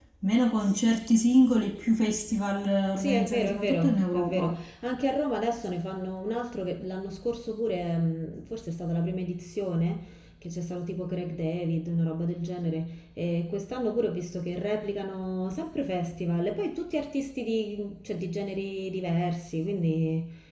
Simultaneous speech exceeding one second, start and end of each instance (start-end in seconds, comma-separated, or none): 3.0-4.6